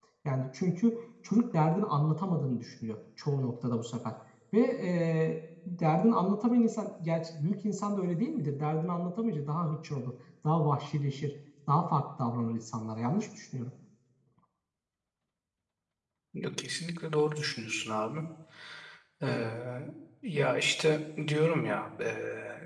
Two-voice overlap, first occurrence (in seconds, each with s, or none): none